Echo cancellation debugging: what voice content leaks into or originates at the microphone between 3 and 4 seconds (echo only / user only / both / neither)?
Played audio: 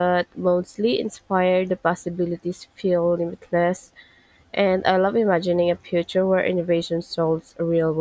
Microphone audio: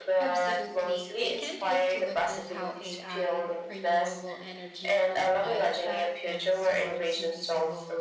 both